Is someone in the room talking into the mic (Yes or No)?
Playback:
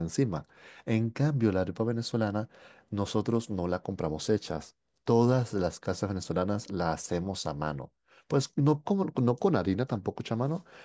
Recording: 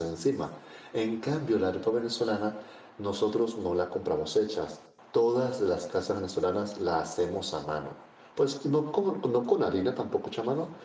No